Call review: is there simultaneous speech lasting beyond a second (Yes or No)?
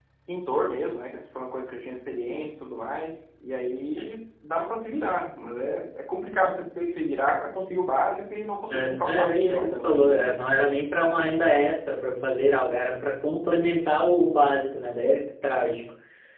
Yes